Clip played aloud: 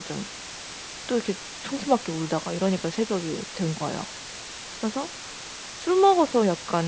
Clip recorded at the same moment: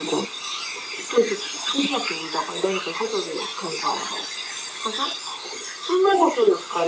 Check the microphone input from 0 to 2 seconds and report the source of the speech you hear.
echo only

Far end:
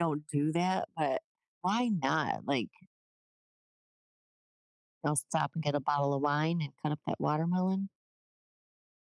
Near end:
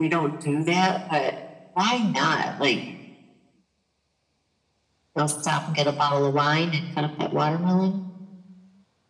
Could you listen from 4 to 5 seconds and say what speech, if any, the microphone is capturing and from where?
neither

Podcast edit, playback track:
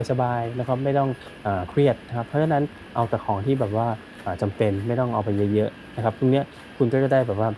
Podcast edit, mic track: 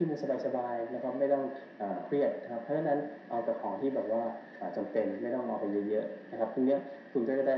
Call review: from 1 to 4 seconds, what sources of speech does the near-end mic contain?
echo only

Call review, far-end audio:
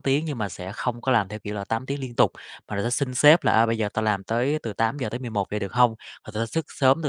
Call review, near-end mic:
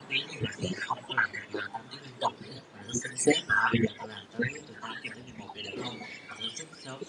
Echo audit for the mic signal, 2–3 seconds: echo only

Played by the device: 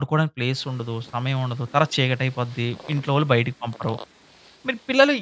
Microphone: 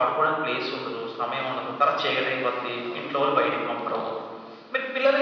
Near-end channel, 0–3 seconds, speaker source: echo only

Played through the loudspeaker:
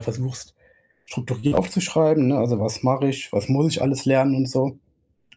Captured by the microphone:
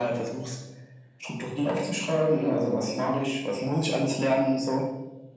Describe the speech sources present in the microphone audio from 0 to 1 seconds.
echo only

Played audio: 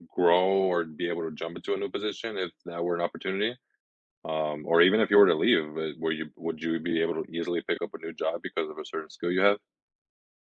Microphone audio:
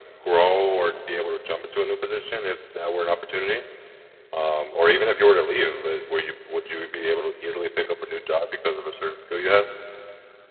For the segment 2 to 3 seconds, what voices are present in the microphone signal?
echo only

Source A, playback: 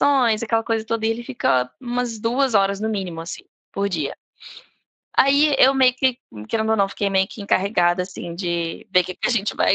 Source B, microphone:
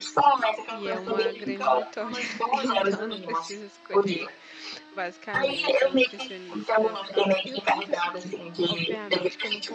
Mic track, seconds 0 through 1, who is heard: both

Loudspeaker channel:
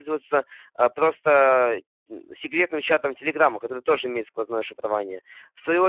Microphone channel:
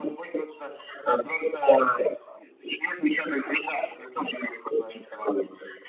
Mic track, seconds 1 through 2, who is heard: echo only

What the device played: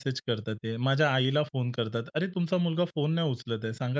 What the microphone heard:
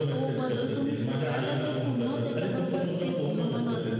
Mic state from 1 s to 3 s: both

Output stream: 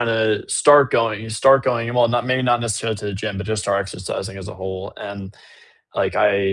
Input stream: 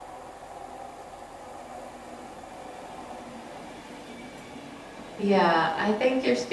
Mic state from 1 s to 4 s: neither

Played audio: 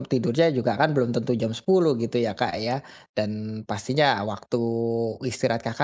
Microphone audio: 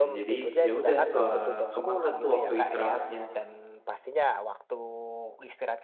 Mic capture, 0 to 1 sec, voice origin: both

